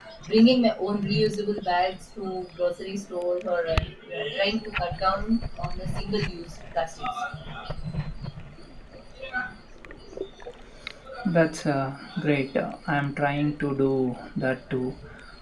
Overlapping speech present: No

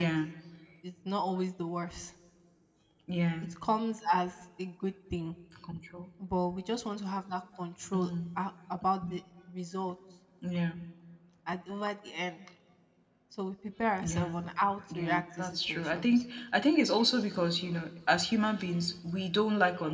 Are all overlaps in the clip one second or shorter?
No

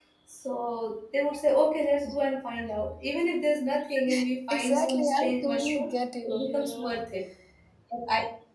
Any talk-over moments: Yes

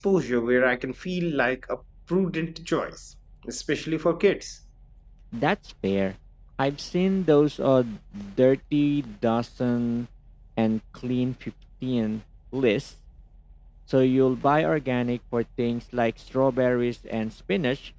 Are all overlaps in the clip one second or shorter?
Yes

